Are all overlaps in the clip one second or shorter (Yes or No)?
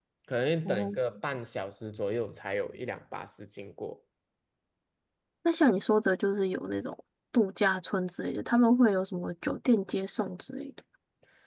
Yes